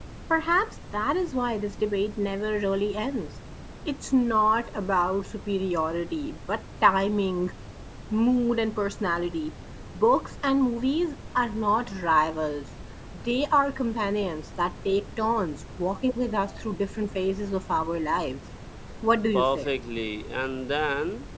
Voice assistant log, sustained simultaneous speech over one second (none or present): none